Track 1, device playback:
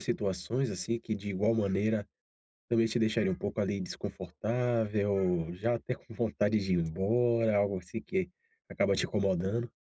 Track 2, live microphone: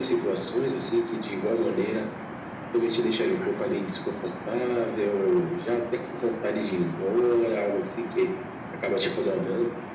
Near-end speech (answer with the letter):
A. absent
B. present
A